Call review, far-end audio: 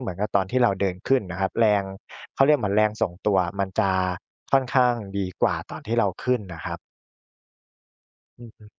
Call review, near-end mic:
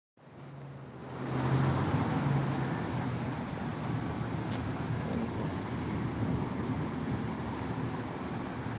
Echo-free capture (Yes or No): Yes